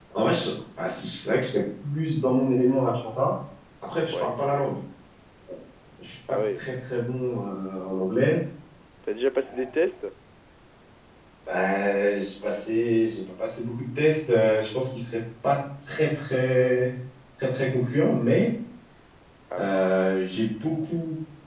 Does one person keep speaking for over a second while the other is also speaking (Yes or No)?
No